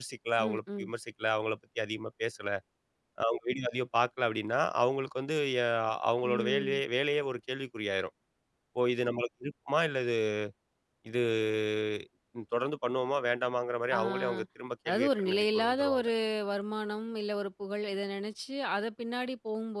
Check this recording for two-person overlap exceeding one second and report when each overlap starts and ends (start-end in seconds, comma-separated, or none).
14.9-16.1